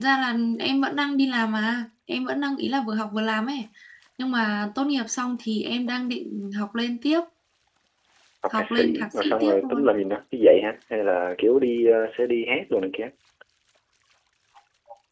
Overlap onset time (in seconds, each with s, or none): 8.5 s